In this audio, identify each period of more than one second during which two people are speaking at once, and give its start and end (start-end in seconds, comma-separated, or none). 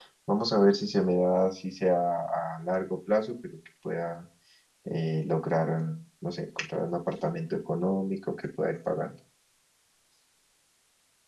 none